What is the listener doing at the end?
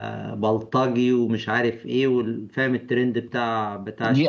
taking over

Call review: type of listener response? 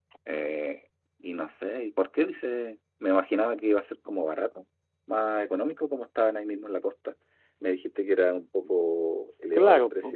taking over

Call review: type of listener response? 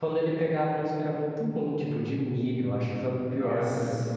listening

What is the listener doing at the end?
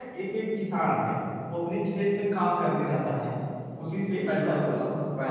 taking over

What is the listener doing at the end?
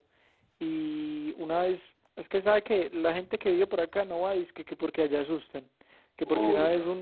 listening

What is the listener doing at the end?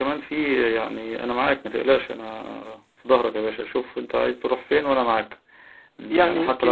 listening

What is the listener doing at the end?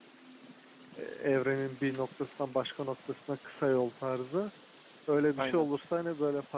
listening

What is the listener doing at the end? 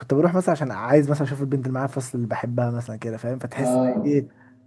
listening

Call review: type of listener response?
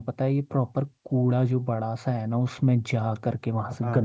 listening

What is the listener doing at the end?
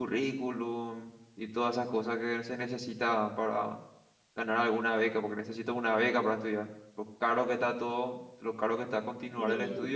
taking over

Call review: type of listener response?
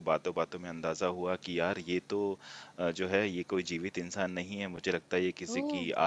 listening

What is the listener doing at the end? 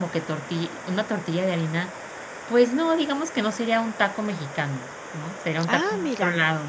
listening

